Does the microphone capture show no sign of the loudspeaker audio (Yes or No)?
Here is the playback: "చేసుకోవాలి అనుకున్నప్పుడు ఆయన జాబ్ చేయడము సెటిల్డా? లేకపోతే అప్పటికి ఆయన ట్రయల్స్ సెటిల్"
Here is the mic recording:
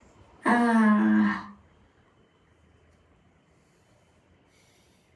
Yes